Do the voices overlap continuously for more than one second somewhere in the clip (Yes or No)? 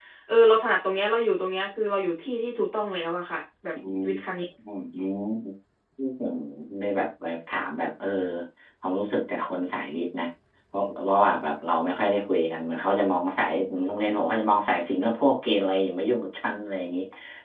No